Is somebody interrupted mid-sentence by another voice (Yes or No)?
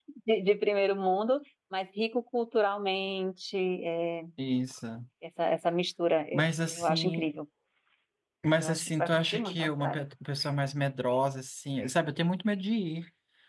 Yes